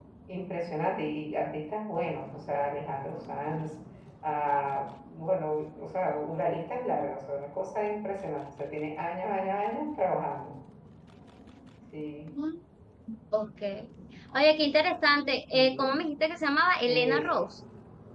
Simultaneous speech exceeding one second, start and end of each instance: none

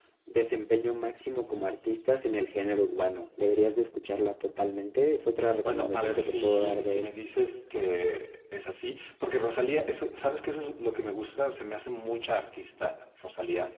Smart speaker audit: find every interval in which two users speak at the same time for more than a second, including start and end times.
5.6-7.1

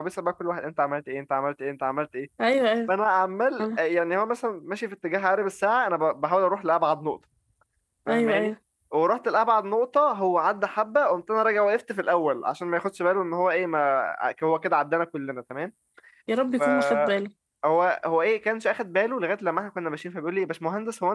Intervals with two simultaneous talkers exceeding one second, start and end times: none

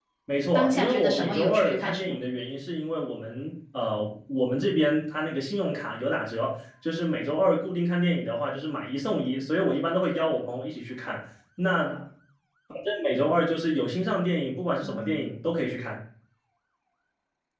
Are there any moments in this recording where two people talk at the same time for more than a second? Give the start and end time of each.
0.5-2.2

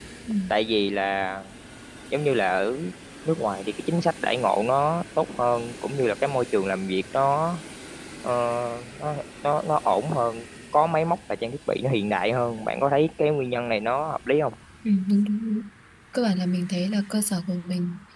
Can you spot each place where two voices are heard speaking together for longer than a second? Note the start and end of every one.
none

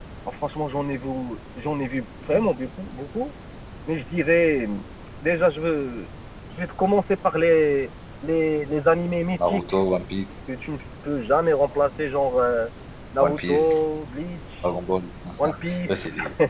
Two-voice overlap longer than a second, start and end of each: none

